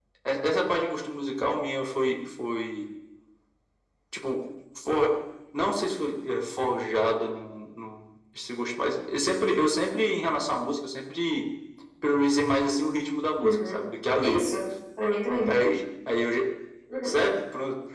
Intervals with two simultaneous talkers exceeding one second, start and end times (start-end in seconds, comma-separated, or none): none